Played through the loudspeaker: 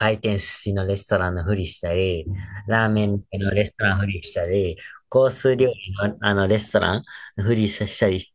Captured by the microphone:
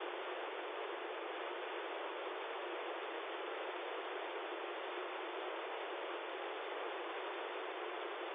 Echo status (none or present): none